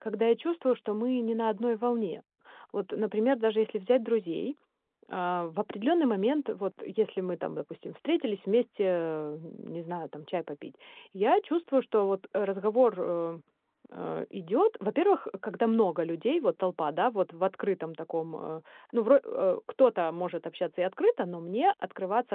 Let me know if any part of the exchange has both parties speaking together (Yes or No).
No